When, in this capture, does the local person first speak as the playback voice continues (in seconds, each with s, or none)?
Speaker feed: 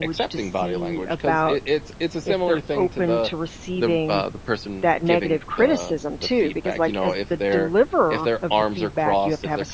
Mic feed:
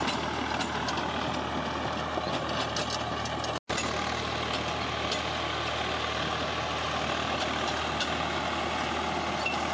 none